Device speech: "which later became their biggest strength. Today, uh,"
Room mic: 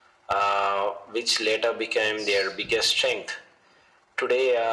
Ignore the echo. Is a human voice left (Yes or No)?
Yes